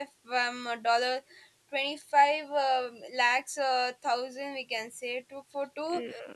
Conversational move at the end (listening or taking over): taking over